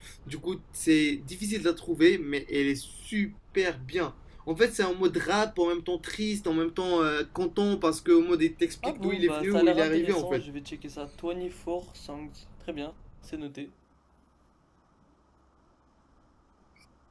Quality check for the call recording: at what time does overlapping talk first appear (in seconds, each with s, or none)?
8.8 s